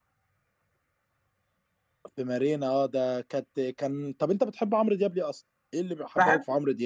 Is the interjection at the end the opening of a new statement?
Yes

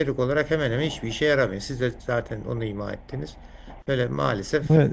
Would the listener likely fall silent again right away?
No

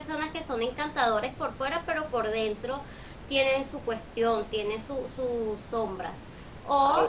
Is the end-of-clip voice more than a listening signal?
No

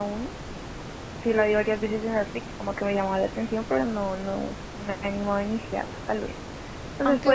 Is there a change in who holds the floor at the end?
No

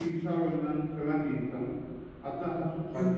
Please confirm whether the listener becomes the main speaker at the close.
No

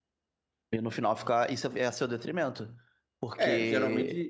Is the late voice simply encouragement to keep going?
No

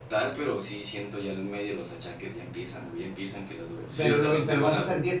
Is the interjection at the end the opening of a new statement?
Yes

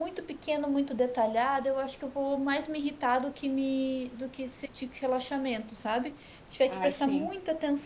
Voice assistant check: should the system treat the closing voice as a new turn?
No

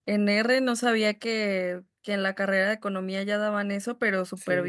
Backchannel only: Yes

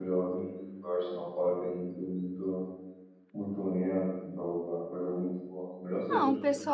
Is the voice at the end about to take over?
Yes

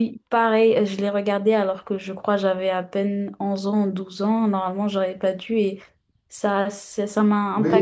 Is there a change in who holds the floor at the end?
Yes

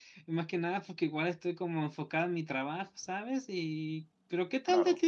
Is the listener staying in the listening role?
Yes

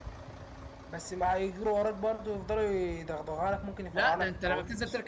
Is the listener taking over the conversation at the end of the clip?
Yes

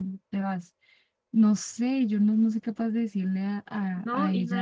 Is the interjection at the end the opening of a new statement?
Yes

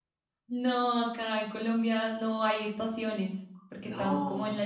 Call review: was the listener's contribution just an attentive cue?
Yes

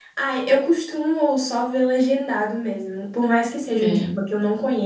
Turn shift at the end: No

